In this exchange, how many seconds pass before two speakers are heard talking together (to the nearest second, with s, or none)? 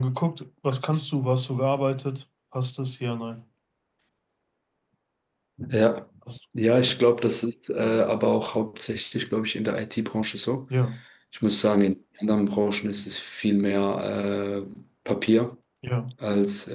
none